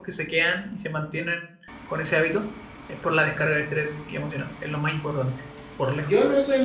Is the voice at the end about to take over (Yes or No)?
Yes